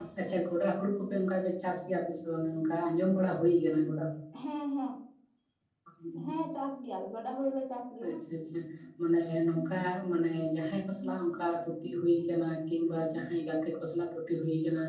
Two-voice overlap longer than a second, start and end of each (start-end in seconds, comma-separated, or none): none